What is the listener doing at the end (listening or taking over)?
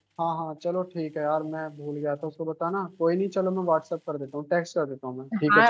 taking over